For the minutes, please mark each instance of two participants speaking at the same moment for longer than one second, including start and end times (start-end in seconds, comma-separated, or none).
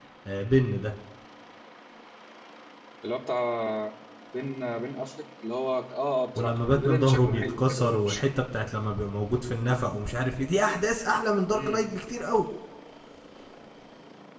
6.4-8.2